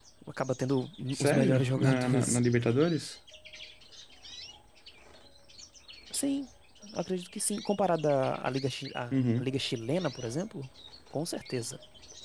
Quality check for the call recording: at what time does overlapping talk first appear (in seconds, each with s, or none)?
1.1 s